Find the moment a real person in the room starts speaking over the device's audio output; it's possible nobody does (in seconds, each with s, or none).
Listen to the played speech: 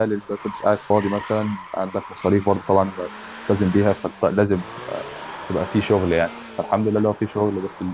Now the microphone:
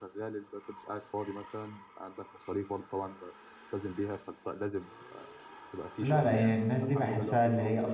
6.0 s